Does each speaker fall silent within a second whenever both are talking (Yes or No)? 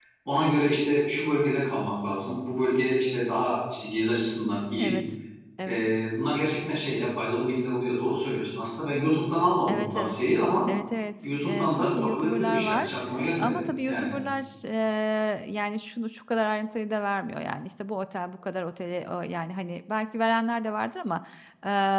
No